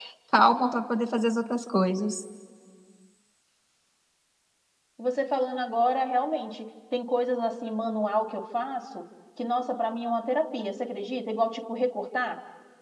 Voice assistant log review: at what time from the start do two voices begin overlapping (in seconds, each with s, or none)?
none